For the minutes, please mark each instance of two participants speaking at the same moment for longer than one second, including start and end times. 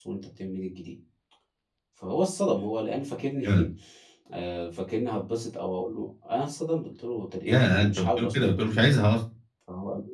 7.5-8.9

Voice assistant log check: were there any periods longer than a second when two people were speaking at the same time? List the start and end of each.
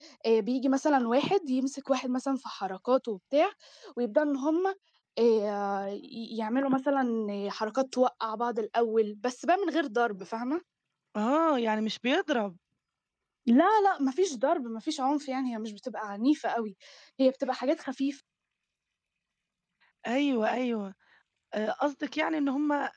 none

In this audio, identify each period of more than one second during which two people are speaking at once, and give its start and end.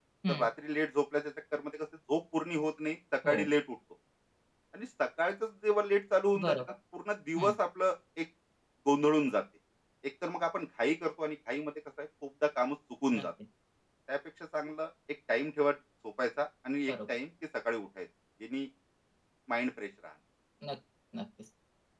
none

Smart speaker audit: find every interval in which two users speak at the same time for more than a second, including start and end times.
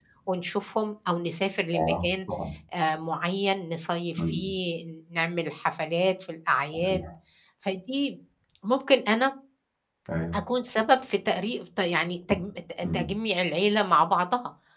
none

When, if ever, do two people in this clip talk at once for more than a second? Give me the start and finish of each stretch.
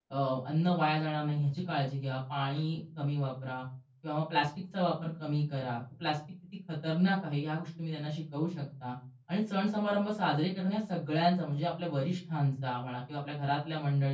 none

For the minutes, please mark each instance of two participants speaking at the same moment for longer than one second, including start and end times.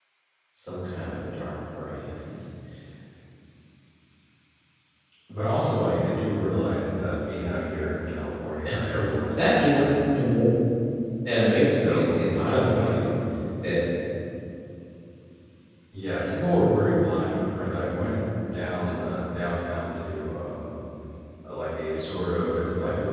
11.8-13.1

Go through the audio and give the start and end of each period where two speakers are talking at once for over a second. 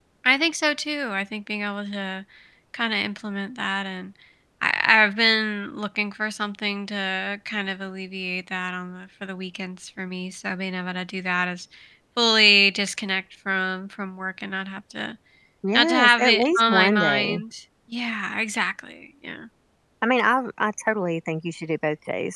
15.7-17.4

